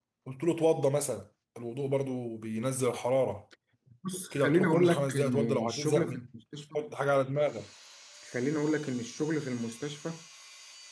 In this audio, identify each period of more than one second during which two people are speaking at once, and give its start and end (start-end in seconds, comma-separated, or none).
4.3-6.3